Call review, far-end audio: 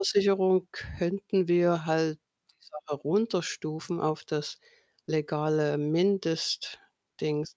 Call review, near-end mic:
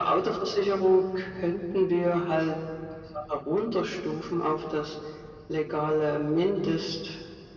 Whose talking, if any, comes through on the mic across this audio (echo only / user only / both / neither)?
echo only